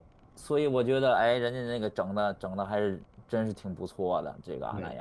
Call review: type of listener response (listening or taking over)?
taking over